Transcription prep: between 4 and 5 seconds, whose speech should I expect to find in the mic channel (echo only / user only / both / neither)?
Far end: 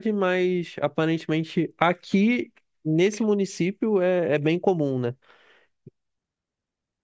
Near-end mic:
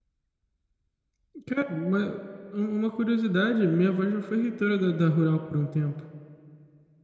user only